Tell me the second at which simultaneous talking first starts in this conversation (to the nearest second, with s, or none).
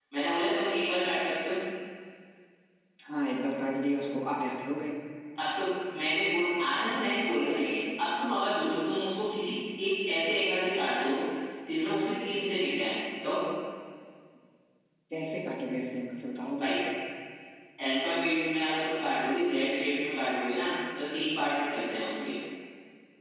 none